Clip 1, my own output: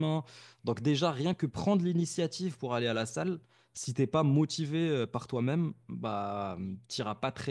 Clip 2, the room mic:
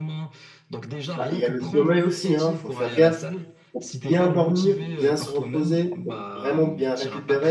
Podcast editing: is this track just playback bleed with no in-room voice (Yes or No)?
No